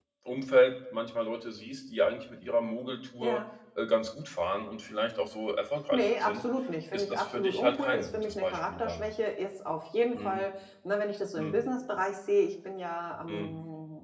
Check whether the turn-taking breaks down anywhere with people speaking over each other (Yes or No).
Yes